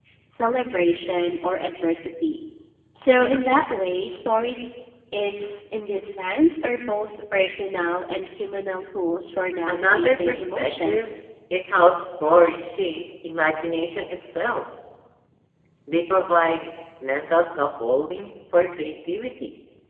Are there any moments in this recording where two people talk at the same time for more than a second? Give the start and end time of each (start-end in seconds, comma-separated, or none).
9.7-11.1